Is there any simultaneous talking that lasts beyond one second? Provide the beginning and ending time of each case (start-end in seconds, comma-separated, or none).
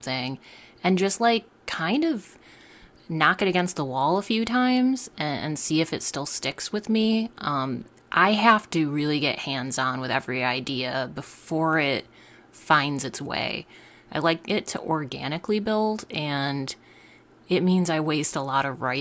none